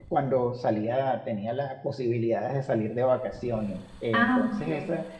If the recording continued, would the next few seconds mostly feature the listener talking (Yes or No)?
No